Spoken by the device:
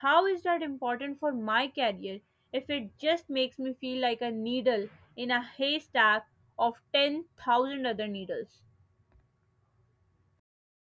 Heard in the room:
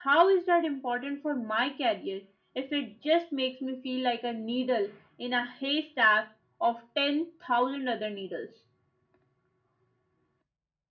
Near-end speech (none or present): none